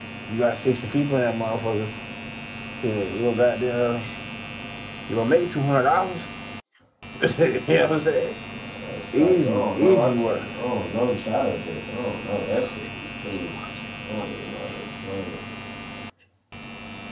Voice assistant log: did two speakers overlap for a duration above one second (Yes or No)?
Yes